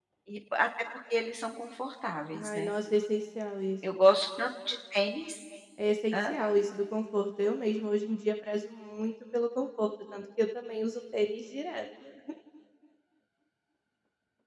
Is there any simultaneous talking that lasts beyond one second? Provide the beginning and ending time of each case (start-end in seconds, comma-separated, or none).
none